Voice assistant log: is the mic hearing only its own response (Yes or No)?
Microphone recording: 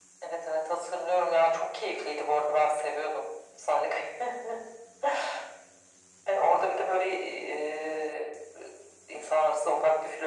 Yes